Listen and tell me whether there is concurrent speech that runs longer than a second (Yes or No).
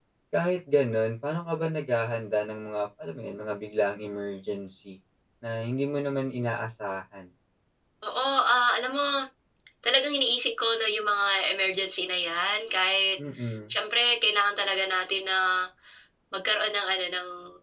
No